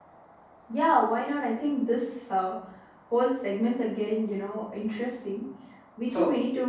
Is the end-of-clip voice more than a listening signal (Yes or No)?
No